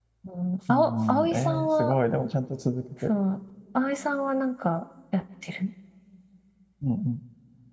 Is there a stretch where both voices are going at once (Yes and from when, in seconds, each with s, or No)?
Yes, from 0.7 s